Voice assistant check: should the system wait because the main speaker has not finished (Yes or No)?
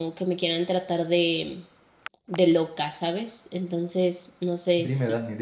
No